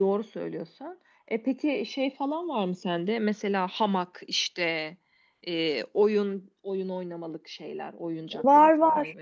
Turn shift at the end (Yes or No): Yes